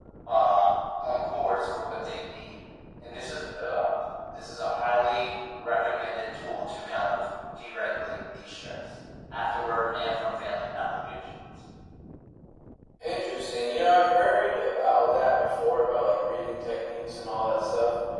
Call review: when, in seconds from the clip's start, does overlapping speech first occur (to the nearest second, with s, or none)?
none